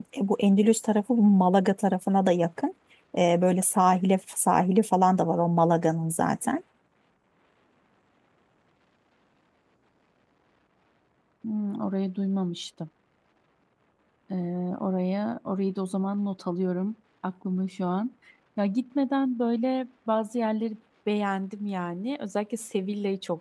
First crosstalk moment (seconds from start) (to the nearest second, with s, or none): none